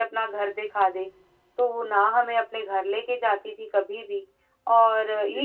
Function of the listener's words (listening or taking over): listening